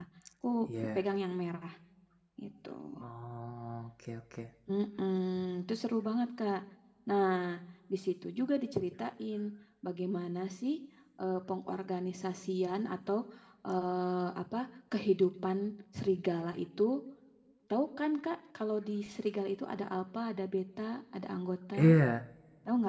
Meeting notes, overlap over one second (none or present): none